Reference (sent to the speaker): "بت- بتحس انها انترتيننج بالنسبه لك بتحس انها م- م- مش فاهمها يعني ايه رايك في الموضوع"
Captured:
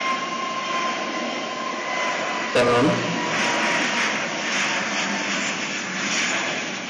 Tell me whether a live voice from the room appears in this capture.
Yes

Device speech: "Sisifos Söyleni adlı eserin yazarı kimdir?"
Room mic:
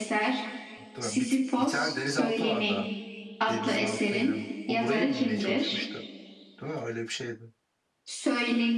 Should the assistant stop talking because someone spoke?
Yes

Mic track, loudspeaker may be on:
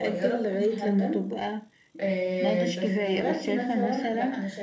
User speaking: Yes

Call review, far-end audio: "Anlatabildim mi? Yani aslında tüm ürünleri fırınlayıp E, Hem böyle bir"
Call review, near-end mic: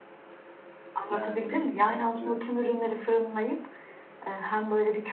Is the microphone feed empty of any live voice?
No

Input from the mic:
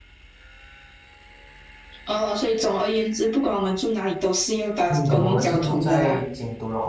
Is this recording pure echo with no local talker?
No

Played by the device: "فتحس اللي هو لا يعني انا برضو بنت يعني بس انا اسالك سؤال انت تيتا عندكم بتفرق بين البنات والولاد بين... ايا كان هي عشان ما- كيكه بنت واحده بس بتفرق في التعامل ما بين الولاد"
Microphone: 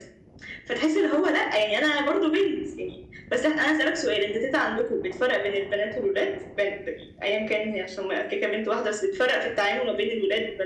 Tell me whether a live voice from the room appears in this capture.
No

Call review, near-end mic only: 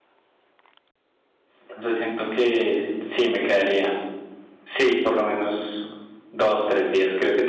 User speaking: Yes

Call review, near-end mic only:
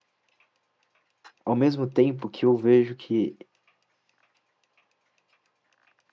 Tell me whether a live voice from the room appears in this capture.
Yes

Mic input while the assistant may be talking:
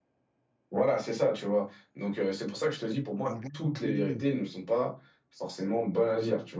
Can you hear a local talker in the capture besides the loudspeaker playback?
Yes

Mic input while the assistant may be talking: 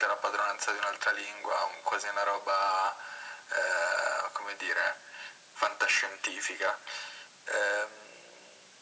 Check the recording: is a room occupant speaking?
No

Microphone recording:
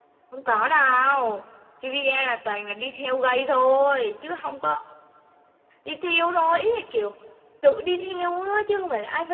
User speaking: No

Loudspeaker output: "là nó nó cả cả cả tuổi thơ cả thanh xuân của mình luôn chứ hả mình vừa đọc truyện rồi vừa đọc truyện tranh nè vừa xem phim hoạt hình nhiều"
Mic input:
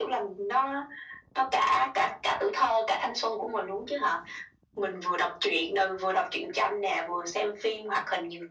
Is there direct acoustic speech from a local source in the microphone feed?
No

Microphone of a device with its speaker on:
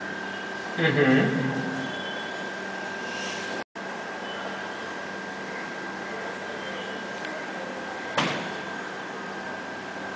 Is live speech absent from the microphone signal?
No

